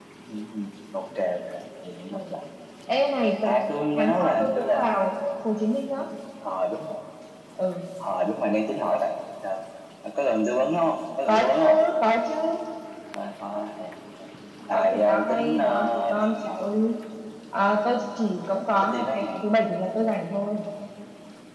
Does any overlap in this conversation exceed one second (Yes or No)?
Yes